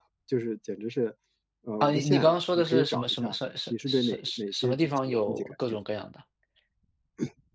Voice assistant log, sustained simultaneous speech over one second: present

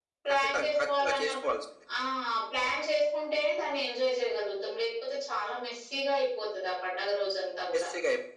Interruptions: present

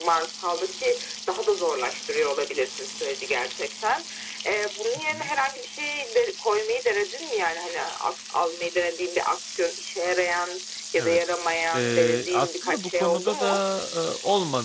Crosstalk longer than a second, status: present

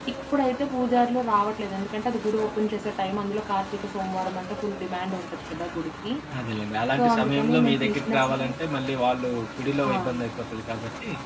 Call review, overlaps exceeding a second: present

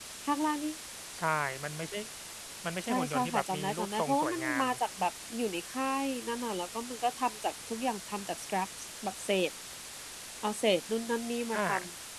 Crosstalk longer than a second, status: present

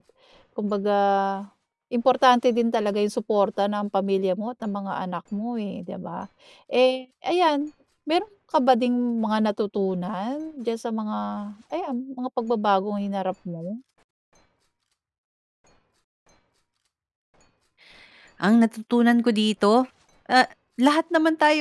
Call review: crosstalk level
none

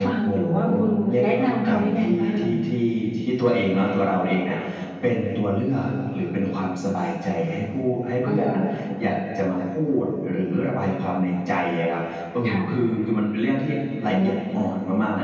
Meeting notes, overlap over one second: present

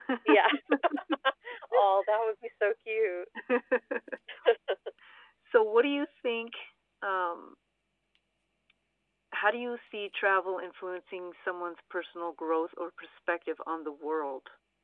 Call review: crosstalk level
none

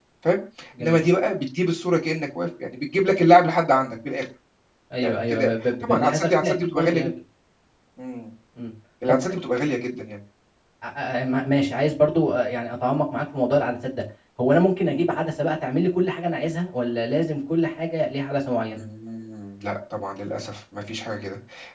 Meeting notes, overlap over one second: present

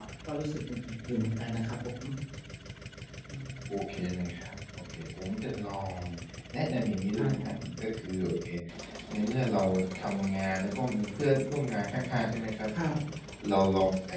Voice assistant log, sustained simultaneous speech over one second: none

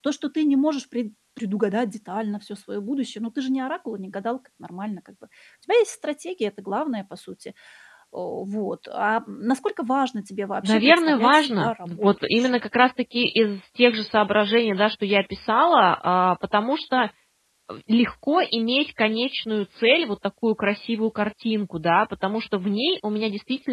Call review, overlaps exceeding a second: present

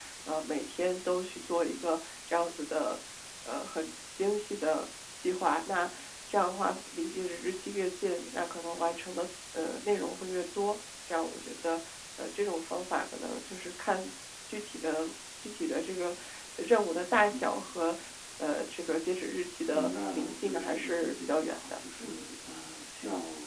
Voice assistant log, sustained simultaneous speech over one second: present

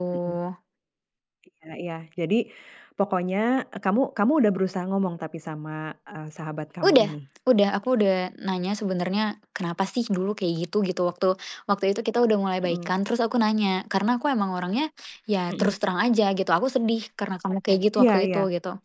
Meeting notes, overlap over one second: none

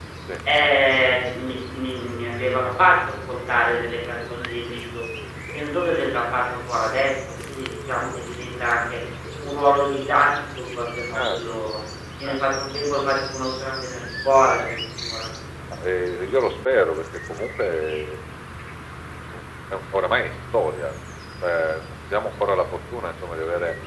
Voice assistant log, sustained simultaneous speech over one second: none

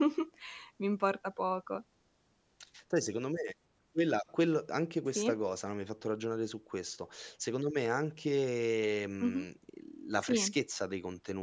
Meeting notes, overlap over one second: none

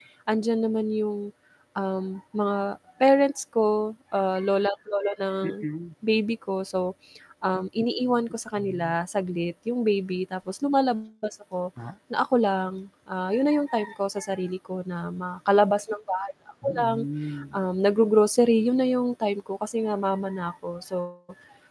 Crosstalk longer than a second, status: none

